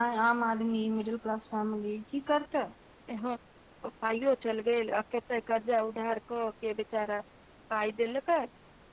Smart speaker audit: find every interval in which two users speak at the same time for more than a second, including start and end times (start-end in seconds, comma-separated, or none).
none